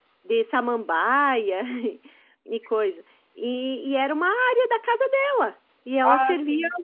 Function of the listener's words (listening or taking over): listening